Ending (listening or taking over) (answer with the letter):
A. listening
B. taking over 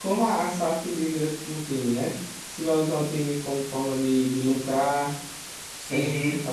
B